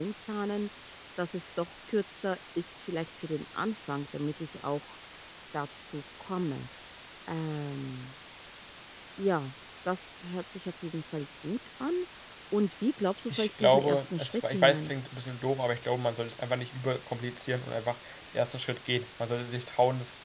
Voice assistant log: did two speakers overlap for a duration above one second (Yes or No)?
Yes